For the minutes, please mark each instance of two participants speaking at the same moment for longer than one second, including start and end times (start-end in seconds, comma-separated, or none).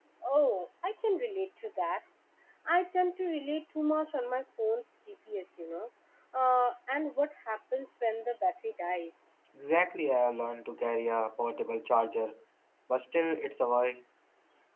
none